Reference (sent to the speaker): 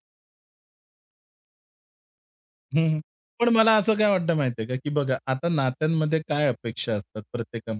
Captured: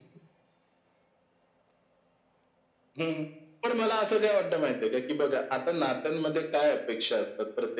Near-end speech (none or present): none